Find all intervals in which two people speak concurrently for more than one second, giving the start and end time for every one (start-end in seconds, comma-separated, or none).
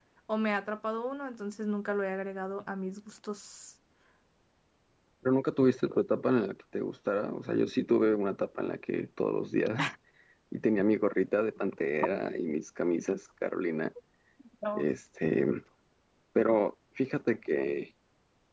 none